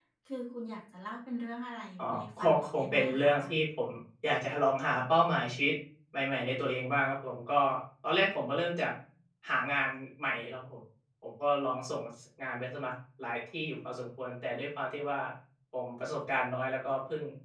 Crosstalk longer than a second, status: present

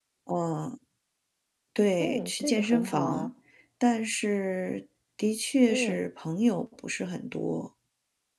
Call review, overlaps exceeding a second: present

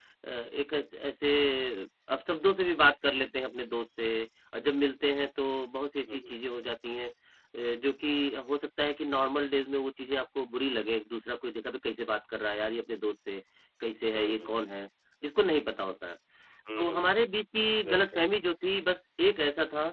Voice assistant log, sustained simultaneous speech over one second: none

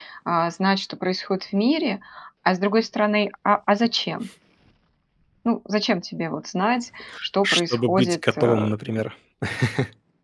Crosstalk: present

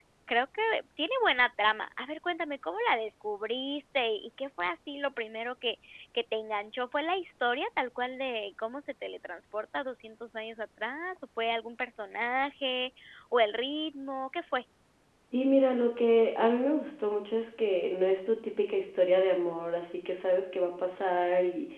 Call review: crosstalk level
none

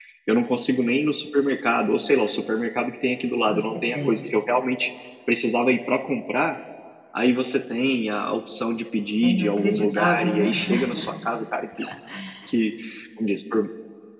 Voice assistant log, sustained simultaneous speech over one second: present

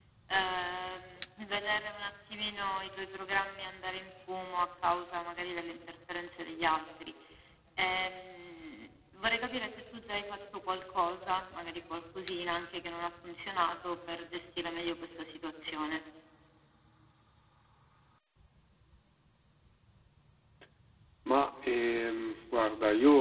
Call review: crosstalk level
none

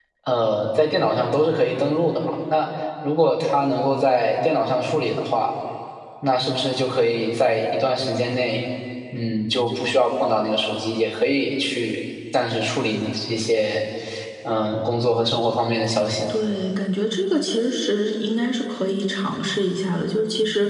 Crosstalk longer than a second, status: none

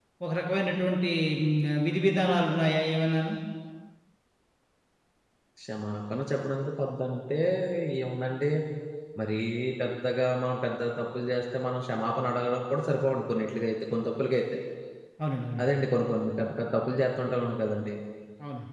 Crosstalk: none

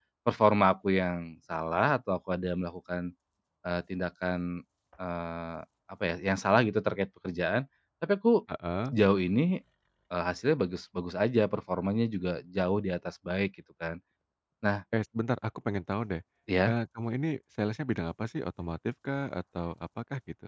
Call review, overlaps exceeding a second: none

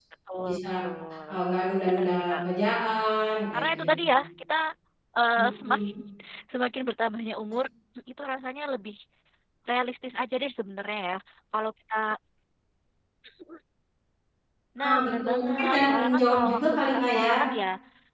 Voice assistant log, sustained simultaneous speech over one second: present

